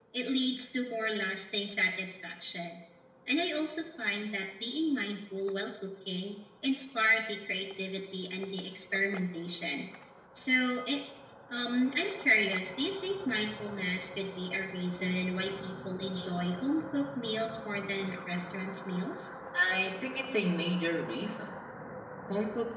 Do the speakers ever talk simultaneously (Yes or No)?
No